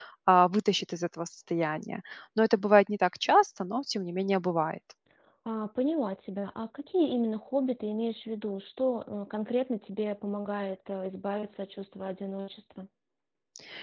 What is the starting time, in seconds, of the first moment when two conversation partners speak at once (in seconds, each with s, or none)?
none